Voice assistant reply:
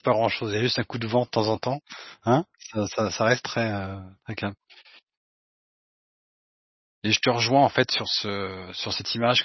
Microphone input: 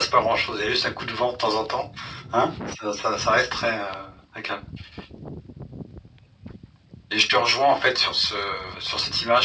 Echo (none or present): present